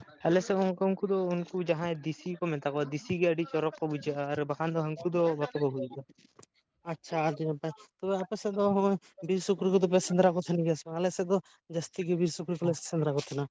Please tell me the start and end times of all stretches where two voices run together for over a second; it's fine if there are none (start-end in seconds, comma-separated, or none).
none